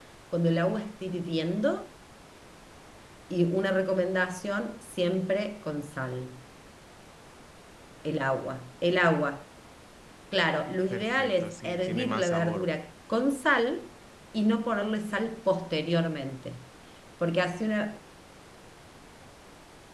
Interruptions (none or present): present